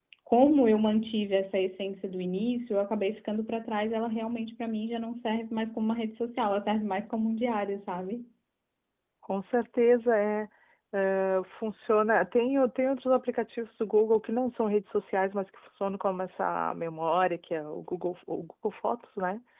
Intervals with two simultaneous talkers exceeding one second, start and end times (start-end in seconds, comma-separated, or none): none